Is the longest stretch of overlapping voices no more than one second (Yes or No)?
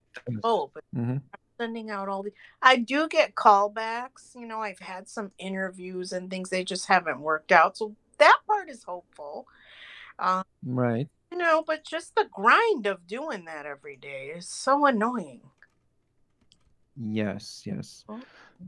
Yes